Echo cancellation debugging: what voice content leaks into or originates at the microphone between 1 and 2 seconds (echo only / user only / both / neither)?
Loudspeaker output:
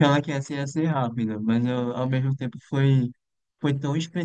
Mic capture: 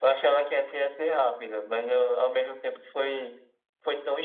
echo only